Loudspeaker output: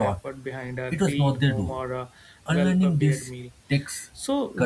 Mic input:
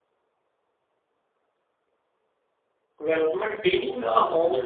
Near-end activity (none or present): present